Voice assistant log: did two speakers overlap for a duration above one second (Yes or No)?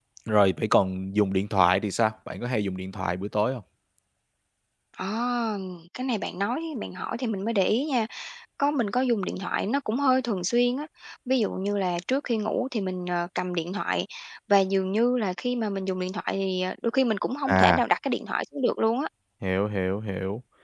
No